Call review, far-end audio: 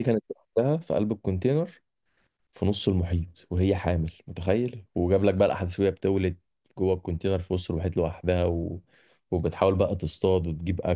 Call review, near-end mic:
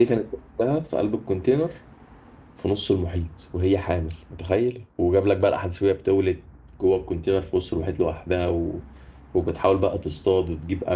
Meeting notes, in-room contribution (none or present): none